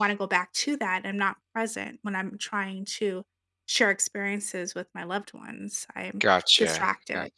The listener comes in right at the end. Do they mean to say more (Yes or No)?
Yes